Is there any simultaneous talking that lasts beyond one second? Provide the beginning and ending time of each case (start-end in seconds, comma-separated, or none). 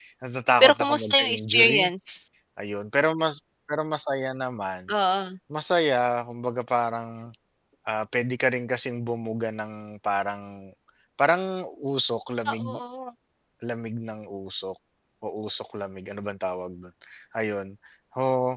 0.6-1.9